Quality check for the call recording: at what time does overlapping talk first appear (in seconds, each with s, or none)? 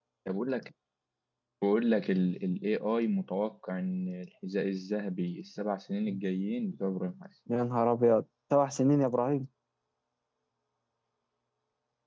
none